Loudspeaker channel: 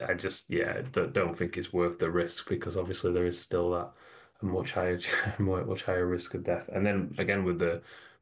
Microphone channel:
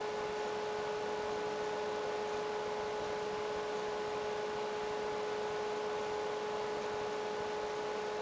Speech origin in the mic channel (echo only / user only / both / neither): neither